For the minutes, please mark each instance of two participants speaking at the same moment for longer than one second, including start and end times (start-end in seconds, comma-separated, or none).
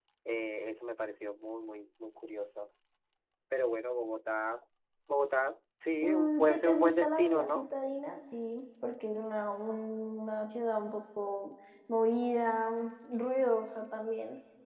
6.0-7.7